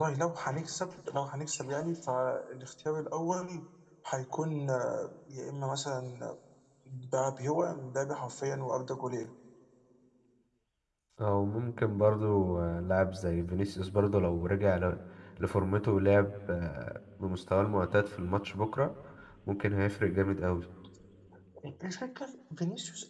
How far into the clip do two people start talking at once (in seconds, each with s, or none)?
none